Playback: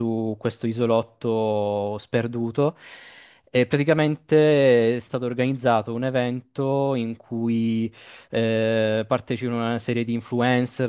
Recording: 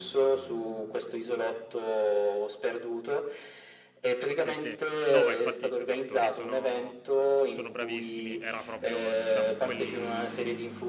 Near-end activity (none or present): present